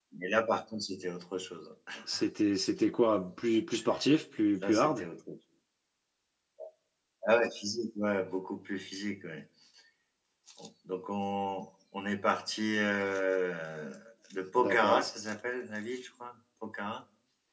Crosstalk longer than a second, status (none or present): none